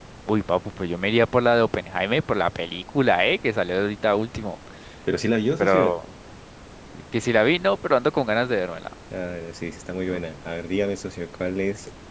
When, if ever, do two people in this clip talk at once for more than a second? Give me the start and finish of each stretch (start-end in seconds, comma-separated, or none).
none